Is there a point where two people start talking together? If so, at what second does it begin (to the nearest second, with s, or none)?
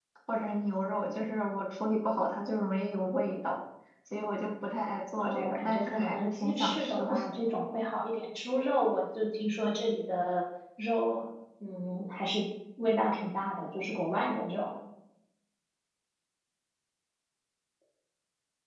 5 s